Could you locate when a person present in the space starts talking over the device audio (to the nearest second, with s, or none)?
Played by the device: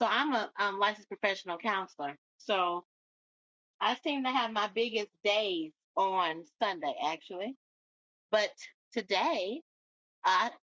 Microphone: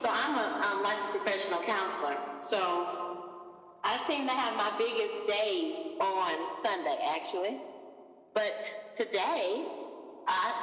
none